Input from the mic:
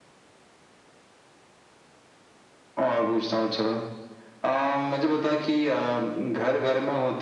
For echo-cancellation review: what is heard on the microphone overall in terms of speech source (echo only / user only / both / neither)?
echo only